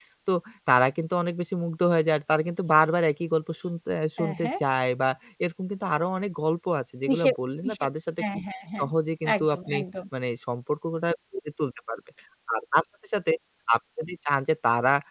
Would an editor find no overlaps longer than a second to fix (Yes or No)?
Yes